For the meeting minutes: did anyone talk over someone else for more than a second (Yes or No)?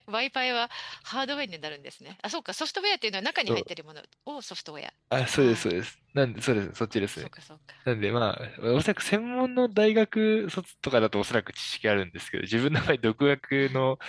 No